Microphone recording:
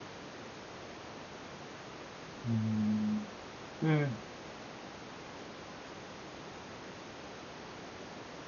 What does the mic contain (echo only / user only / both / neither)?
user only